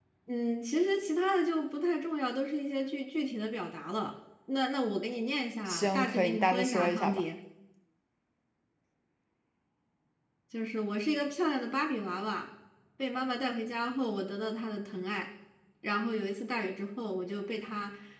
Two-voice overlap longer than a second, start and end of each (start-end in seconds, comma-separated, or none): 5.7-7.2